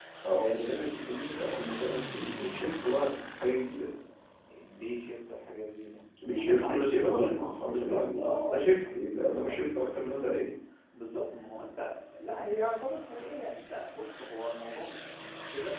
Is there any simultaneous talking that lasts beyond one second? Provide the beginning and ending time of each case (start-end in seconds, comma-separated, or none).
6.3-8.8